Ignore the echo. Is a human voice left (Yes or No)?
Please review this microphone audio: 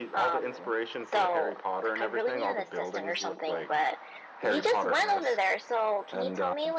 No